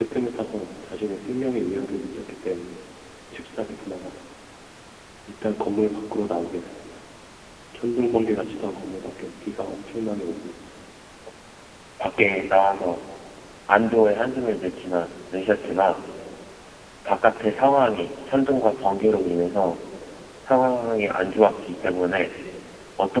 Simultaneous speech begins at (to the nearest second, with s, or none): none